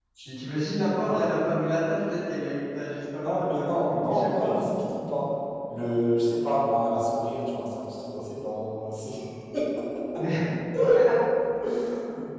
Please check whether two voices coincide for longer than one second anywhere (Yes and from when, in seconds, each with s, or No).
Yes, from 3.1 s